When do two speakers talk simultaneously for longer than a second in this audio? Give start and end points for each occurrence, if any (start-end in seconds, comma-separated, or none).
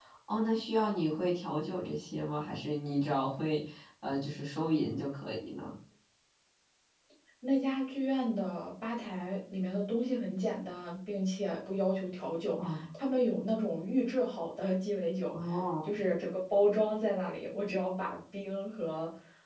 none